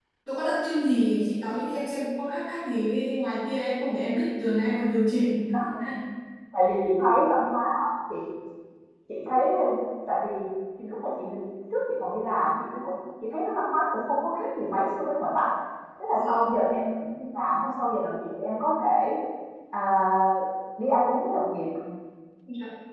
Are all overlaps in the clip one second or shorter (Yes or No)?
Yes